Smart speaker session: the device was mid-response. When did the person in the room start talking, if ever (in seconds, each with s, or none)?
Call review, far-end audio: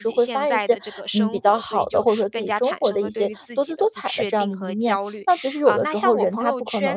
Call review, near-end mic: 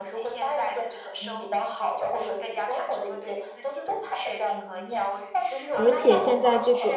5.8 s